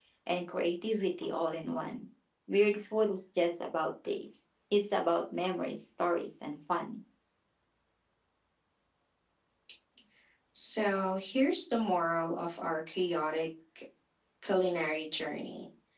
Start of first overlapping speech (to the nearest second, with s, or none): none